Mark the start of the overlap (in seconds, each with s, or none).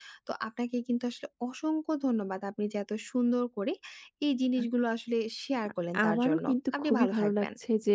5.9 s